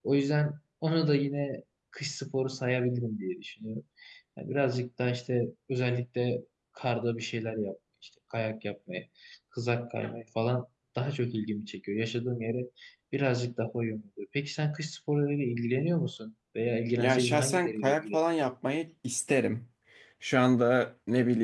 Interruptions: present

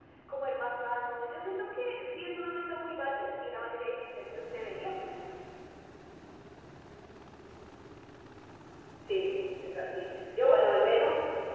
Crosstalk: none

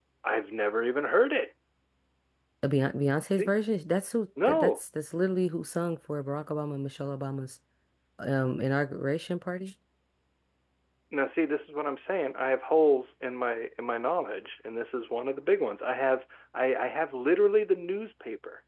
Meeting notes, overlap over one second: none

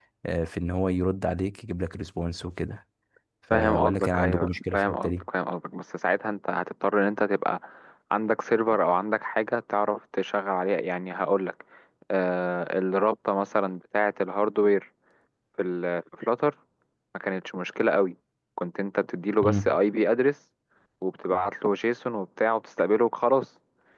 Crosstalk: present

